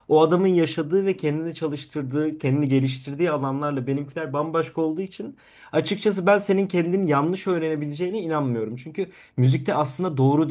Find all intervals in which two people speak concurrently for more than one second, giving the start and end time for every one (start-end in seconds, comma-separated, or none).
none